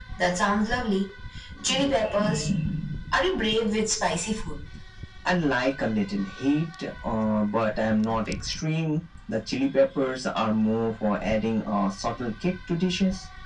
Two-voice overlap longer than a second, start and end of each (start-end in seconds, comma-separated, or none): none